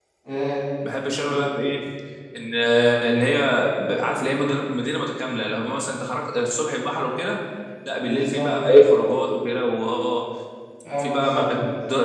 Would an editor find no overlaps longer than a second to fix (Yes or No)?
Yes